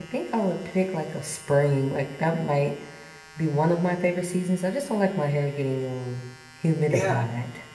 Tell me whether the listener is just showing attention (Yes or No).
No